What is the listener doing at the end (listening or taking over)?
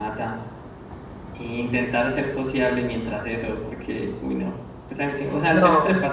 listening